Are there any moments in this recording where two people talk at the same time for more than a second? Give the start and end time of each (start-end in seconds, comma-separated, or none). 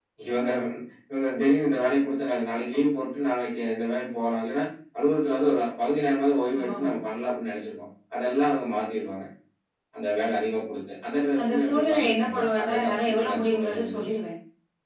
11.4-14.0